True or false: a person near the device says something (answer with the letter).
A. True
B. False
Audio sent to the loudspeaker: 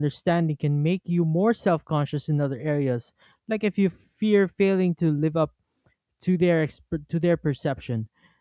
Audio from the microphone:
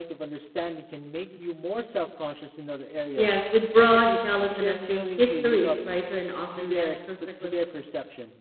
A